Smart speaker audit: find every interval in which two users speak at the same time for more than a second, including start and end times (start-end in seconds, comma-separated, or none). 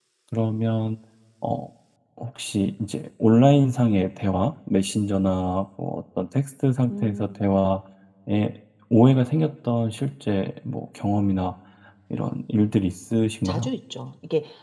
none